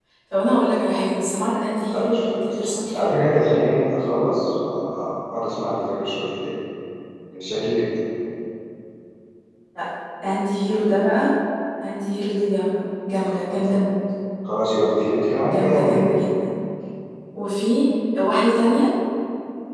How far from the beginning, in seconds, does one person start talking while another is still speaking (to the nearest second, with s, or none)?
2 s